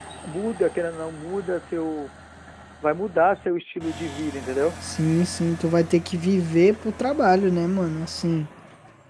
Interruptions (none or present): none